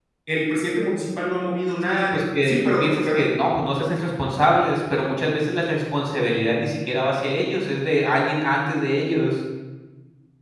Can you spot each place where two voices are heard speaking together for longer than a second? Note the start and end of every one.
1.8-3.2

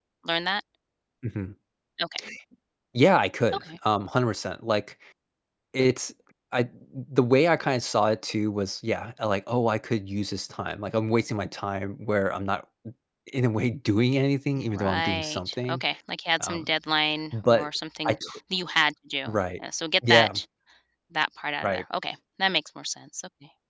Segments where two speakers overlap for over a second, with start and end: 14.6-15.8

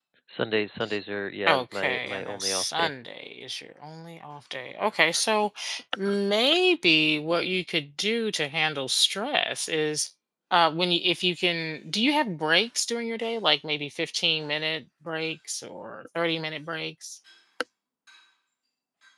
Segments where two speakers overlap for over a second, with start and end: 1.5-2.9

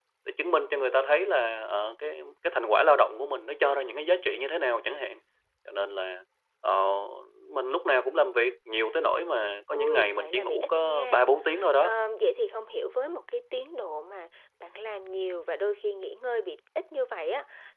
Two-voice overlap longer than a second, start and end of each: 9.7-11.2

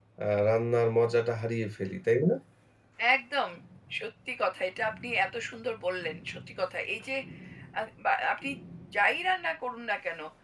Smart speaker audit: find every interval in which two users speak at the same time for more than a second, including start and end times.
none

